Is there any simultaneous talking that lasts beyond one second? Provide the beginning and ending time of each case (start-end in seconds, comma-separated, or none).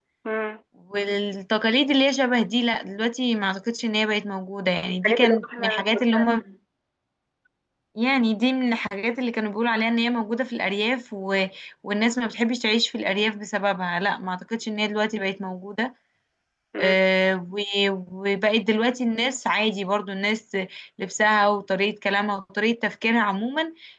5.0-6.3